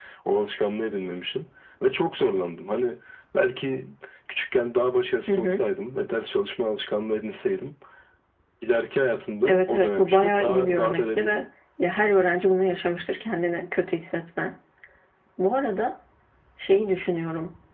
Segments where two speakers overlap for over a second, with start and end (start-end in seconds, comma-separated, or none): 9.4-11.4